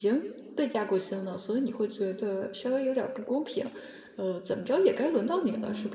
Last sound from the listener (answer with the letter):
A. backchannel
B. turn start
B